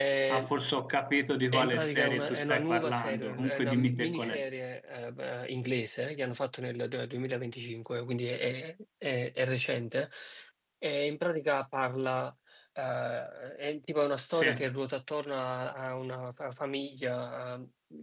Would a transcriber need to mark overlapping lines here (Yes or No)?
Yes